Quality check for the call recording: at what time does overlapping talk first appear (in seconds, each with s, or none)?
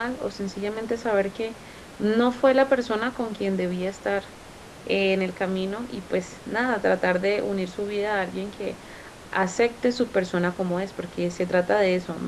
none